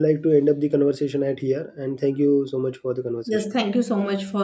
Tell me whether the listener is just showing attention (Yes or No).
No